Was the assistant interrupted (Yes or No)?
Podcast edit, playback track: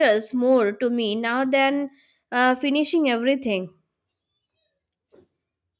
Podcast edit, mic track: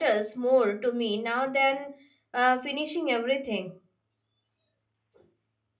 No